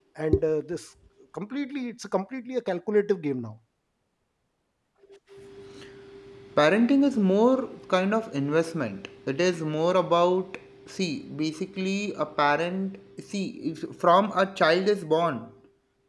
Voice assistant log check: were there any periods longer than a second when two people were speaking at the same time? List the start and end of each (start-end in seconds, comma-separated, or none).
none